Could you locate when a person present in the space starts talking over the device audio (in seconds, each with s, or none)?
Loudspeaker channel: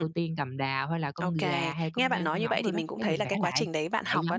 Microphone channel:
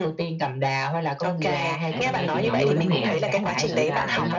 1.9 s